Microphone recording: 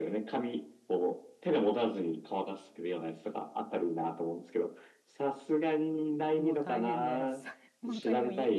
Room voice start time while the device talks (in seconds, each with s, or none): 6.4 s